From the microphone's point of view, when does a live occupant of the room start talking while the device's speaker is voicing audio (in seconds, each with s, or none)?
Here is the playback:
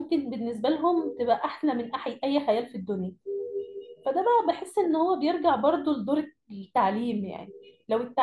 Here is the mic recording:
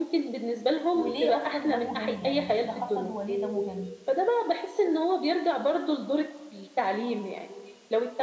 0.9 s